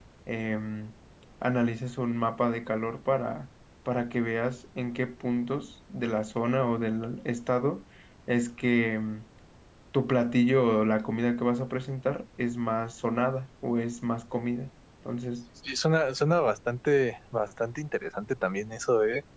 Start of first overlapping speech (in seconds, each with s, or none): none